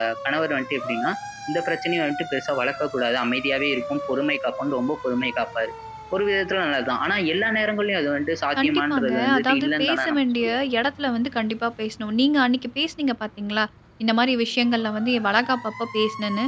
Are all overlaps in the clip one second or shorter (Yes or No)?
No